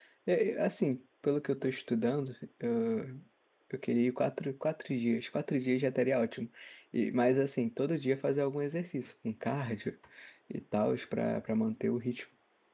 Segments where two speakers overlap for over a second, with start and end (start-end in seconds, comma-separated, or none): none